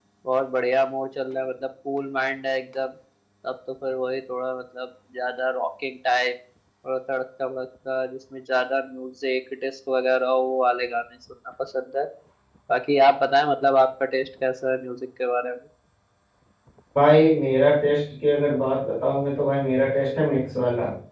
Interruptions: none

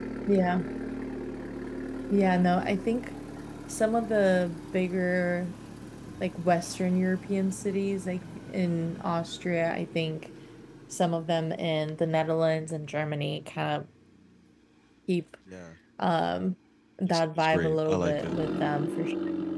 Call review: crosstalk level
present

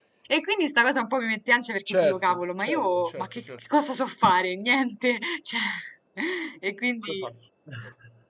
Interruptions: present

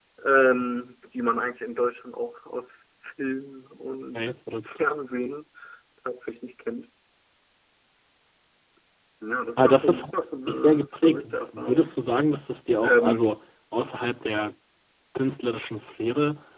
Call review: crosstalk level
present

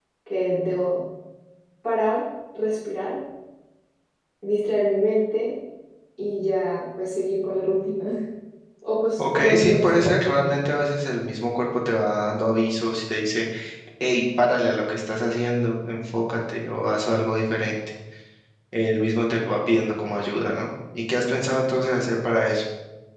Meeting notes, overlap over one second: present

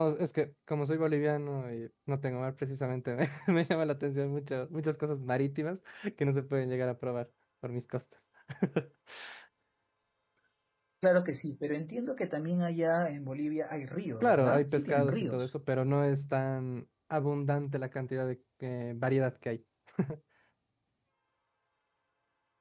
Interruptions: present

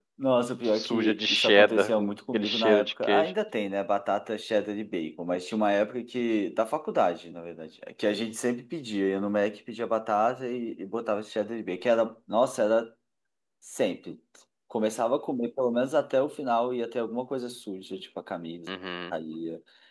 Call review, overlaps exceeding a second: present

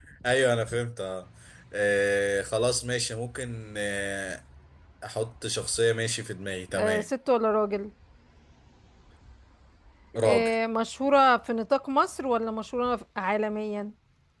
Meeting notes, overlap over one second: none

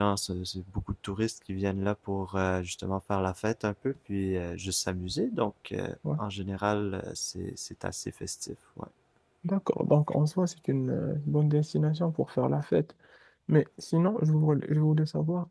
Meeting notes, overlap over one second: none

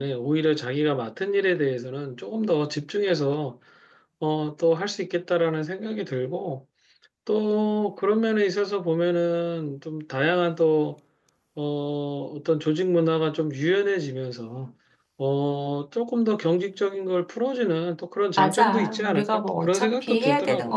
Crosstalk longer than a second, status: present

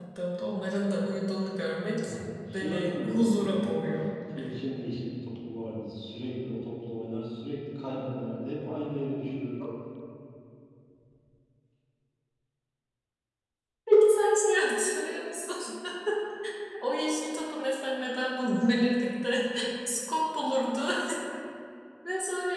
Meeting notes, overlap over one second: present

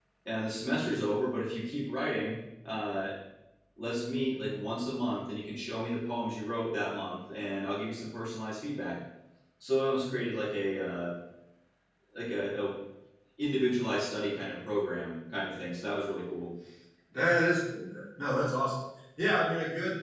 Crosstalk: none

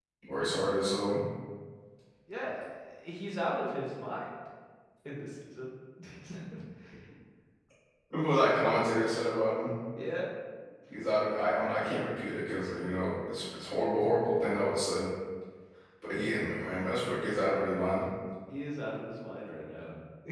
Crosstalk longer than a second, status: none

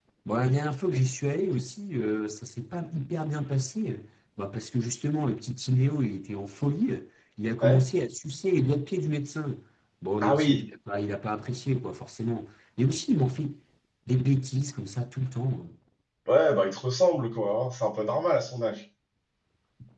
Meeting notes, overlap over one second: none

